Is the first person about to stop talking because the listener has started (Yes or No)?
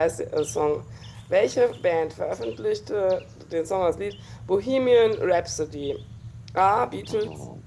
No